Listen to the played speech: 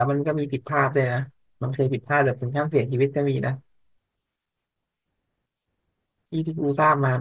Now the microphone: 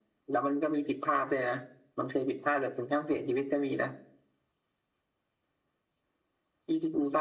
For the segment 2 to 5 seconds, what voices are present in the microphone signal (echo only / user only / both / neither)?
echo only